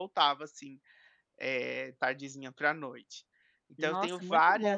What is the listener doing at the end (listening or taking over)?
taking over